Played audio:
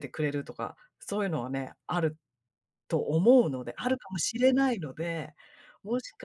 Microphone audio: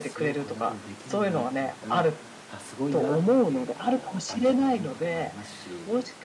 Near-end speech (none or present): present